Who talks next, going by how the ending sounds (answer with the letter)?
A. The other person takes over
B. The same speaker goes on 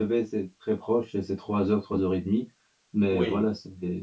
B